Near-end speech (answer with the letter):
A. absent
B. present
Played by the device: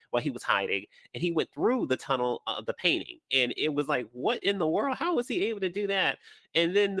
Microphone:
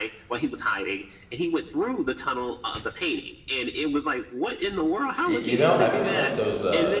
B